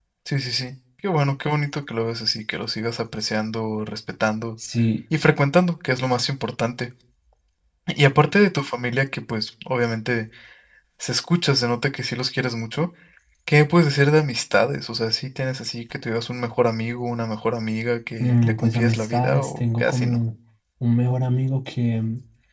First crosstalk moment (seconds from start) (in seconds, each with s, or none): 18.2 s